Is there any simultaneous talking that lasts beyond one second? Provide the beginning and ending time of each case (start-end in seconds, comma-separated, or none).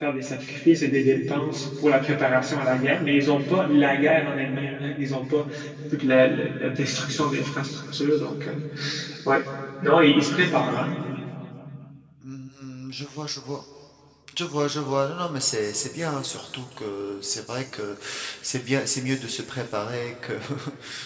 none